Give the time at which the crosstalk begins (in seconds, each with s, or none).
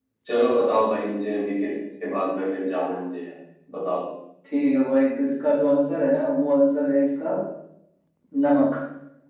none